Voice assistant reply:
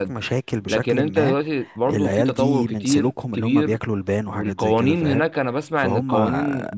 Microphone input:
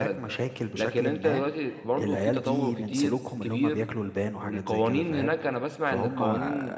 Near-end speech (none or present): none